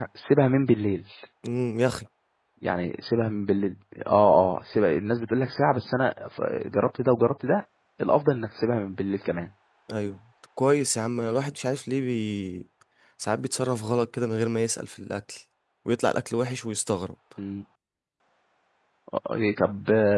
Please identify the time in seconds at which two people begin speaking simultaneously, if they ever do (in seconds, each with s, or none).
none